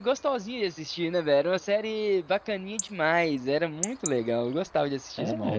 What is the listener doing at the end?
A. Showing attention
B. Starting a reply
B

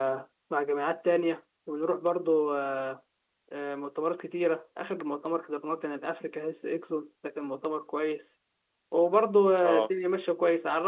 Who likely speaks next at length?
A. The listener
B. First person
B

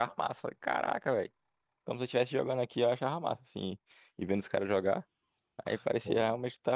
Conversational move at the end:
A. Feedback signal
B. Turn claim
A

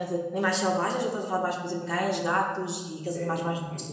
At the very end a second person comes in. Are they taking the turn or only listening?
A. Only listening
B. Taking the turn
B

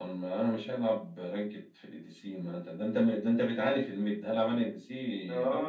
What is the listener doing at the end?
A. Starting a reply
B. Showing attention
A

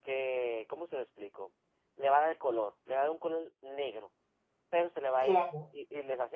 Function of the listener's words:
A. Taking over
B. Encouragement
B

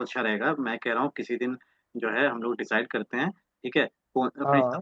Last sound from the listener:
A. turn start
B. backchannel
B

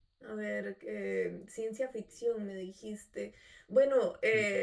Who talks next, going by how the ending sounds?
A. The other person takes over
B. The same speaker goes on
B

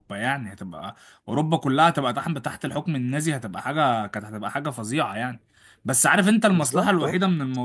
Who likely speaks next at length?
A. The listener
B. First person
B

